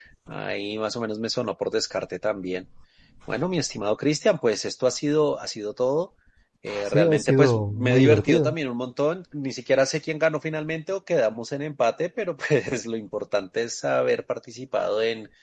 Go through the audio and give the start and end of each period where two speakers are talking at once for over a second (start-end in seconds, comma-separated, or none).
6.9-8.5